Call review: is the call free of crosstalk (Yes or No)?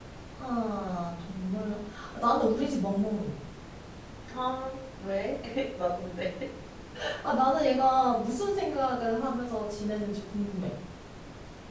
Yes